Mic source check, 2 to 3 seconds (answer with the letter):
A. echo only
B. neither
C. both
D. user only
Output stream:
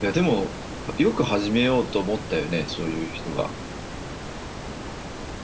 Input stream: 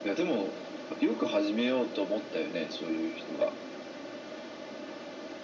A